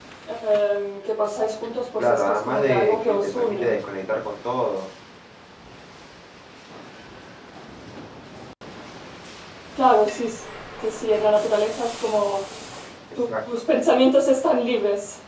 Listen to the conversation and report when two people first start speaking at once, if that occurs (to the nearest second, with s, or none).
2 s